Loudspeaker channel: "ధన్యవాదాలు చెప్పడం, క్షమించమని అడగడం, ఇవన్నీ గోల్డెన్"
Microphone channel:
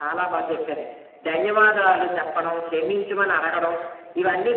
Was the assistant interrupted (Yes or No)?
No